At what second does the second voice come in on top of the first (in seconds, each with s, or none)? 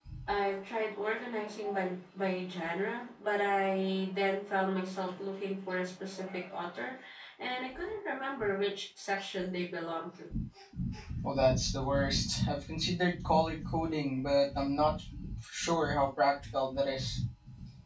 none